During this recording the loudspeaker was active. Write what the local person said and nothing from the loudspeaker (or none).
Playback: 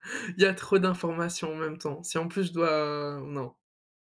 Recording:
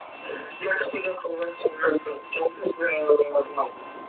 none